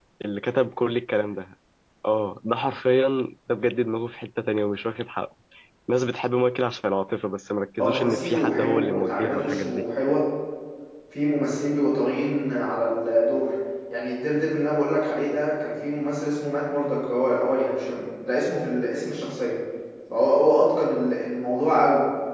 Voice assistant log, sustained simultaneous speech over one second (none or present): present